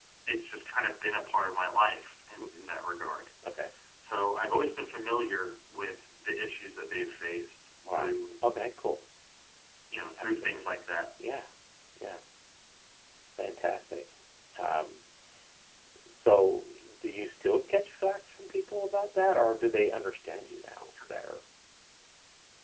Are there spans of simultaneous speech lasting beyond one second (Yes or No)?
No